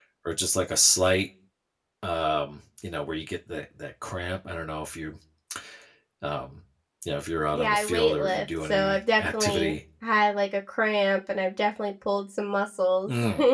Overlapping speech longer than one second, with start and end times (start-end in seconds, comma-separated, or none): 7.5-9.8